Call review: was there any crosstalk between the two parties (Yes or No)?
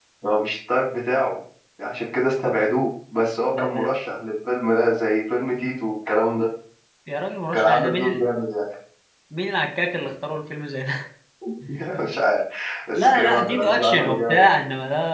Yes